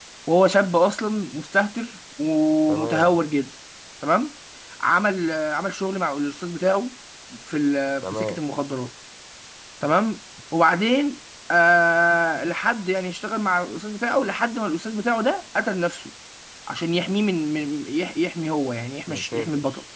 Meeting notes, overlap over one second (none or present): none